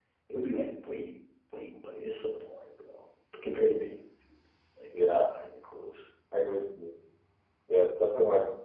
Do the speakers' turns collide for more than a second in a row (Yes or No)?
No